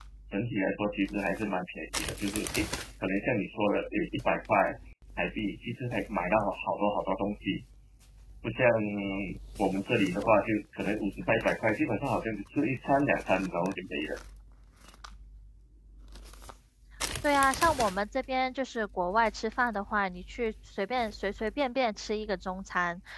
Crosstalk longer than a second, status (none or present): none